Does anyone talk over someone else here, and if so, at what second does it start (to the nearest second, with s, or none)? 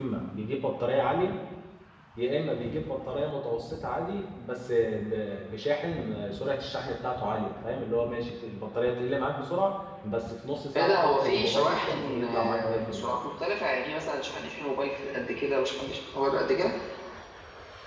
11 s